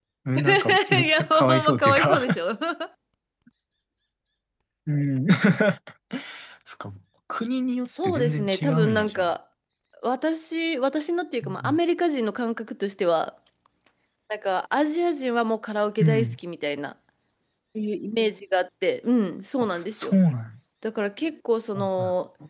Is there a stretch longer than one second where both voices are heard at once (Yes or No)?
Yes